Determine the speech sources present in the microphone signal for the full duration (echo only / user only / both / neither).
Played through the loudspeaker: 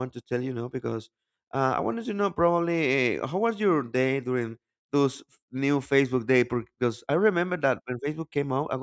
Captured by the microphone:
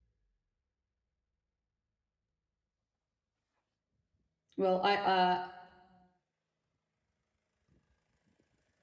user only